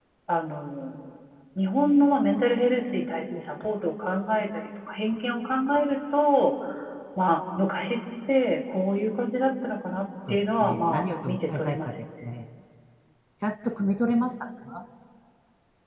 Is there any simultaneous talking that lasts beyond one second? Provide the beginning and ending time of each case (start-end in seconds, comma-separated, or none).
10.3-11.9